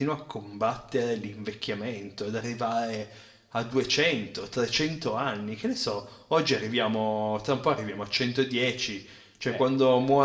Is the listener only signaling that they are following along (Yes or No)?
Yes